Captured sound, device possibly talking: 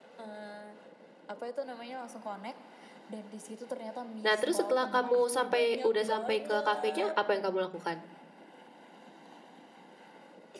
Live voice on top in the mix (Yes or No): Yes